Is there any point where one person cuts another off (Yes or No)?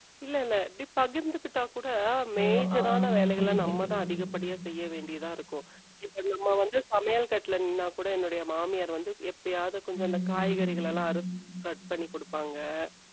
Yes